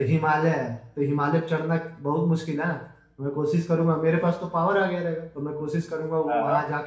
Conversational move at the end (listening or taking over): listening